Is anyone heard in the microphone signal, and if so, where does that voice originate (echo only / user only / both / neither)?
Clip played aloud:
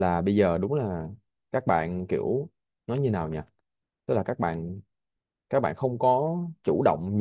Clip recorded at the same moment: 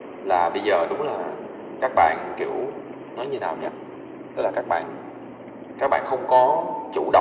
echo only